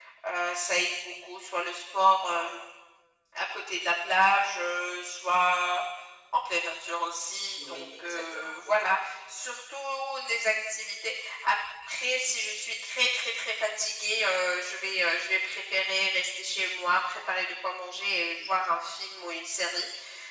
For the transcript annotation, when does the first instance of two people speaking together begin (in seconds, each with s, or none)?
7.6 s